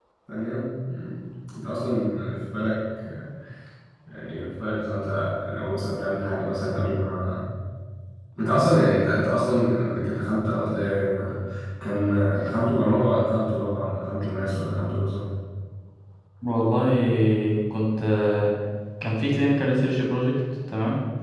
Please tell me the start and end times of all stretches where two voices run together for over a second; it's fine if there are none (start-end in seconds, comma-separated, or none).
none